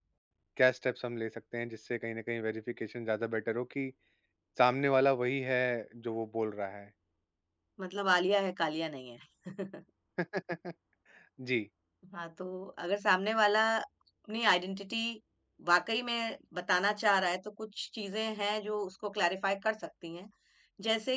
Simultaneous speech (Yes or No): No